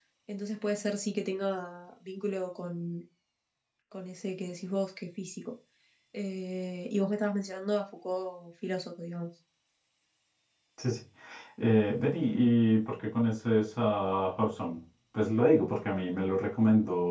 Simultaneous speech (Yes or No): No